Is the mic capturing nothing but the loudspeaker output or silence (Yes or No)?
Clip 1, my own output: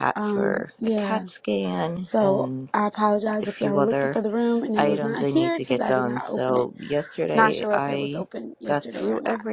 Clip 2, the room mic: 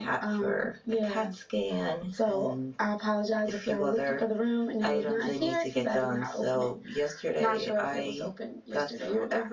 Yes